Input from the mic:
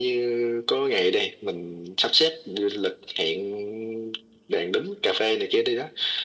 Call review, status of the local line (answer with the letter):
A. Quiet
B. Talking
A